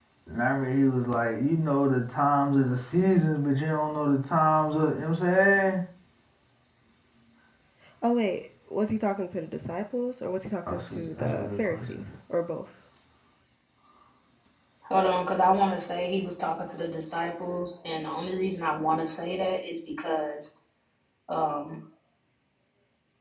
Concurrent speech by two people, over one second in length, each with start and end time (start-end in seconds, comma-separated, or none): 10.7-12.1